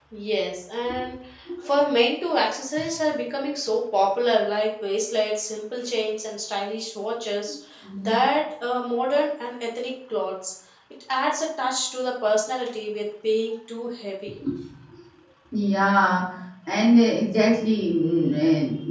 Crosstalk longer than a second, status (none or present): none